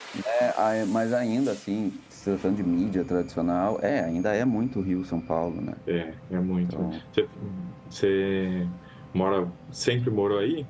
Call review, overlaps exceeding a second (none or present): none